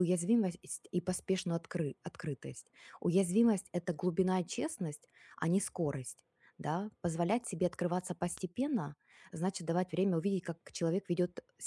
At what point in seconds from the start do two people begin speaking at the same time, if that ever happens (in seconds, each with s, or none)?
none